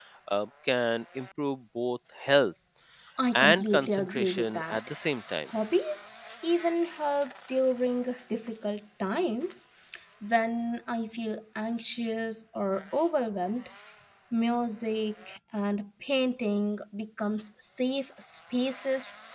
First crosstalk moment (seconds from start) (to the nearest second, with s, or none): 3 s